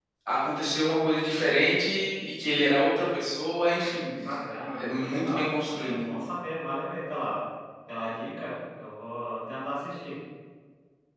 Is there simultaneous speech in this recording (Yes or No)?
Yes